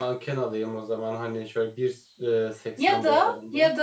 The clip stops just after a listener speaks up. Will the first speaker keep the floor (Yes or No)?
No